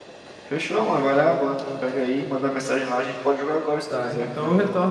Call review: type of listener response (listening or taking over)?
taking over